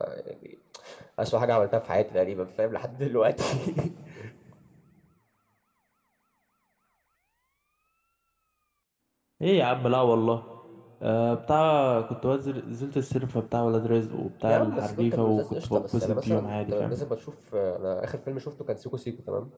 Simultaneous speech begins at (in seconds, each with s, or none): 14.5 s